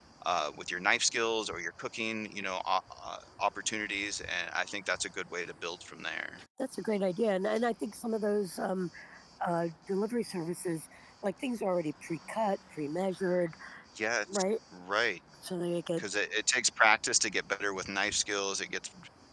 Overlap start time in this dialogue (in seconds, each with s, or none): none